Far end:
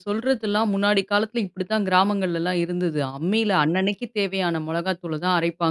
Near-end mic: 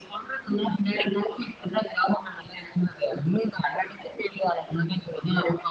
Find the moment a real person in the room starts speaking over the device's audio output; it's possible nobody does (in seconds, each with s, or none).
none